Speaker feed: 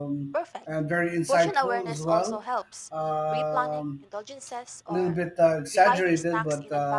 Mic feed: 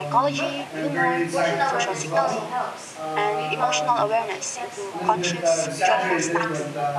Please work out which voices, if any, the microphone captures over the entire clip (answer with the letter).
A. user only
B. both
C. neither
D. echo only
B